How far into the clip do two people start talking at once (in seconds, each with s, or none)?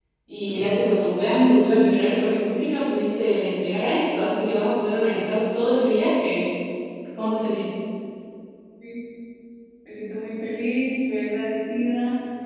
none